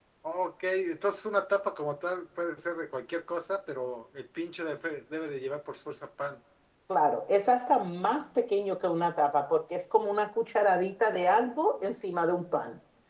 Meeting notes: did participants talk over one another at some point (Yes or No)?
No